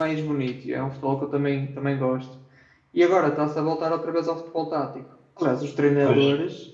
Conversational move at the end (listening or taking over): listening